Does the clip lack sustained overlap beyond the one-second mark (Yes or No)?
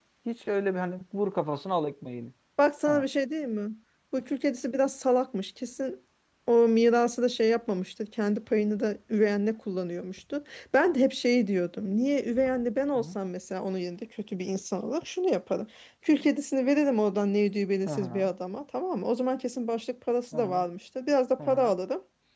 Yes